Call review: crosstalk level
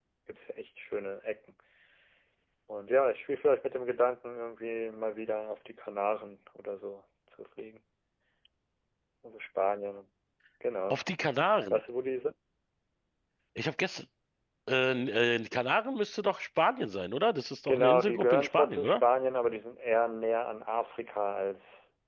present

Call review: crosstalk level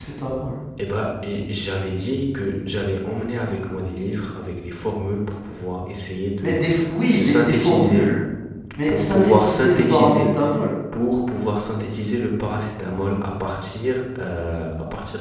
present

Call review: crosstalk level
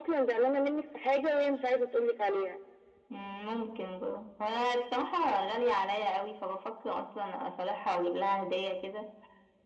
none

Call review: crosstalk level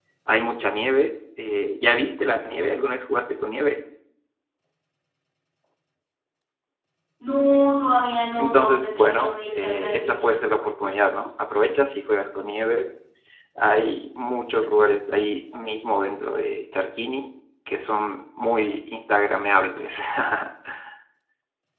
present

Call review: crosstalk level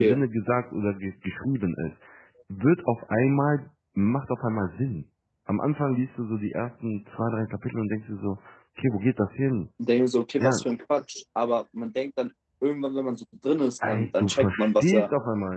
present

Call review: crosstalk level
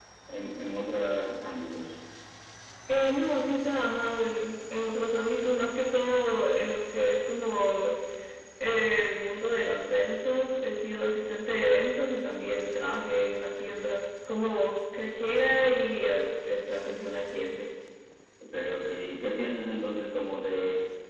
none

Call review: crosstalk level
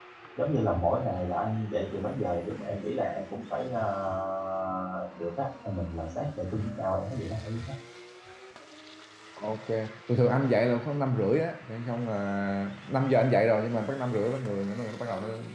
none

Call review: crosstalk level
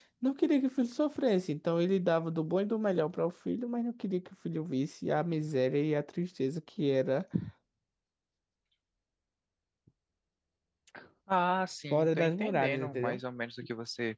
present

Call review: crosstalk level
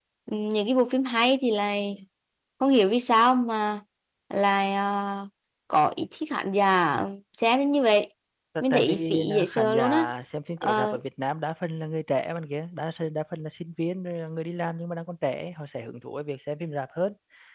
present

